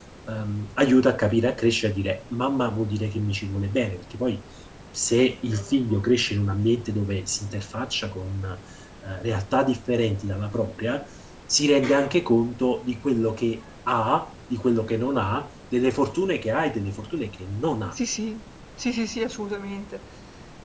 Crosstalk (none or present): none